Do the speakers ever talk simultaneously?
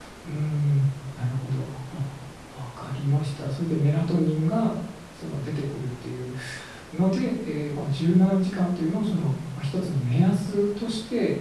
No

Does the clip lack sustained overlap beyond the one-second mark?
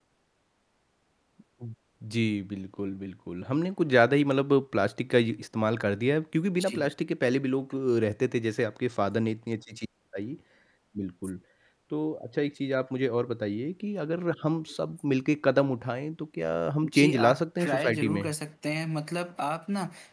No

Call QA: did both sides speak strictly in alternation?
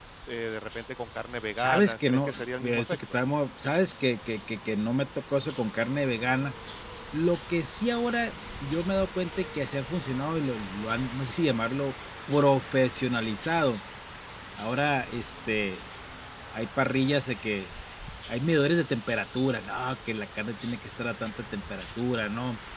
No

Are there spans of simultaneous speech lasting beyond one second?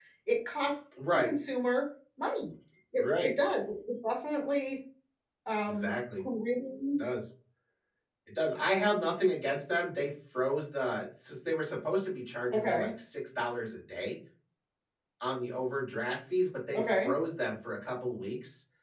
No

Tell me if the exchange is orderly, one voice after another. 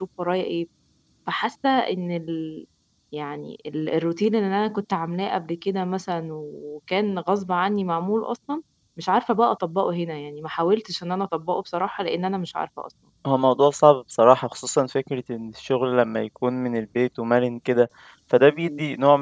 Yes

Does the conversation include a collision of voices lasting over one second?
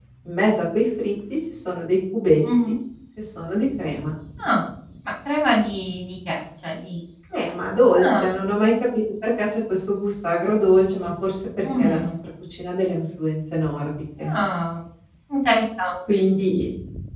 No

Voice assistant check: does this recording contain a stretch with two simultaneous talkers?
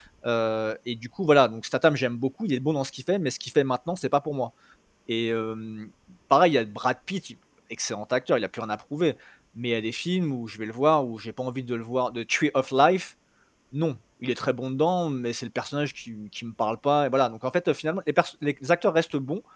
No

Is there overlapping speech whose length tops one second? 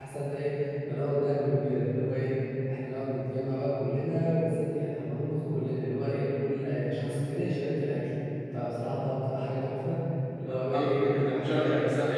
Yes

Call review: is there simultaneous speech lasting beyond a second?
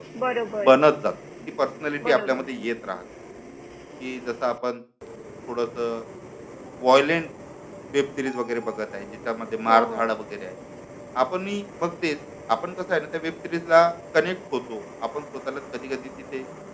No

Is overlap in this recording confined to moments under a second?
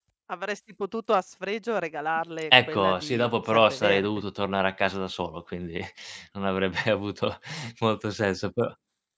No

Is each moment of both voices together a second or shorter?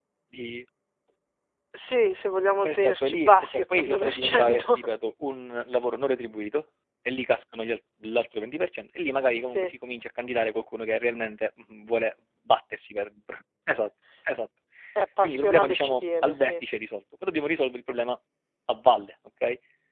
No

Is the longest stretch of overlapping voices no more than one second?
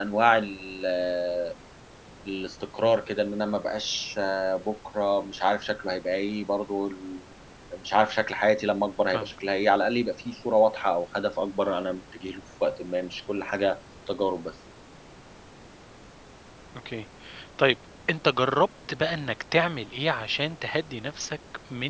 Yes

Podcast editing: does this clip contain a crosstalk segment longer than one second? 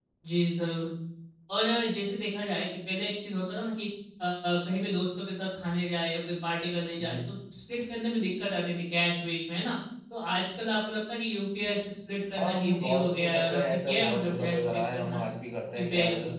Yes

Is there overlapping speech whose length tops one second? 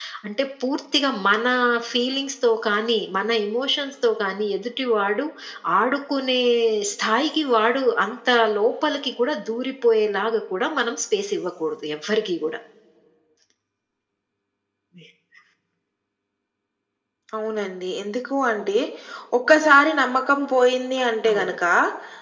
No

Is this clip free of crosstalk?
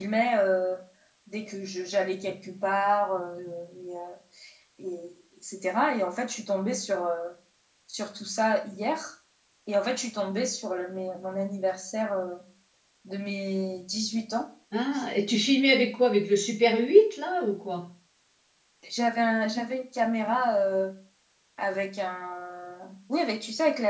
Yes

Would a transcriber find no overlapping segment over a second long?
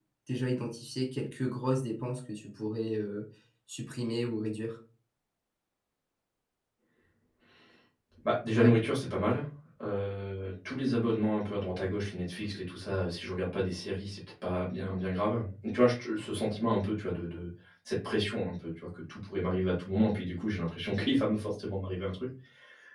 Yes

